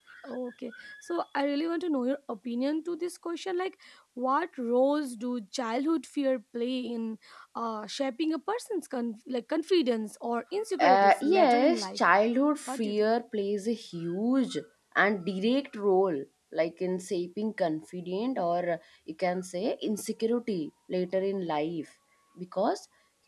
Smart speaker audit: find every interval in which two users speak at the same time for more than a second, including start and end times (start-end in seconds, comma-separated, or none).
10.8-12.0